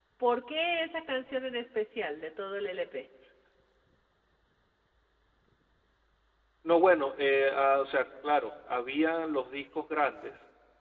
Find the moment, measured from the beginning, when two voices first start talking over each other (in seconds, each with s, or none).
none